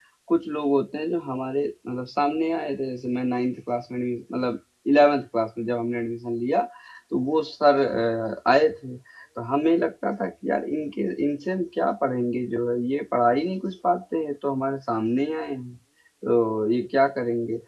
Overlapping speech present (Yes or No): No